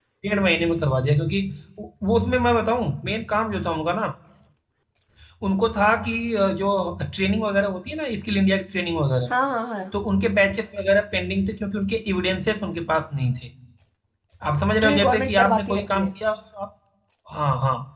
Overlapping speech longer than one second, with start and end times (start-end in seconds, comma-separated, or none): 14.8-16.1